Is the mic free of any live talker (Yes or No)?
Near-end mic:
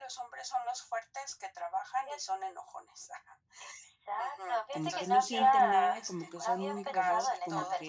No